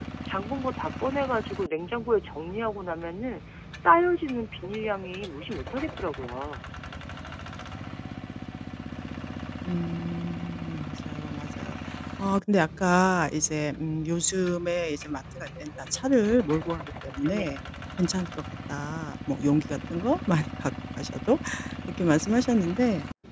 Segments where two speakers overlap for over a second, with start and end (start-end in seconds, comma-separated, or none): none